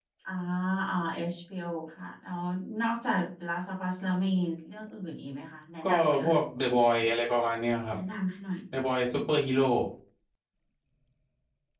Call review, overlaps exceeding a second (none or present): none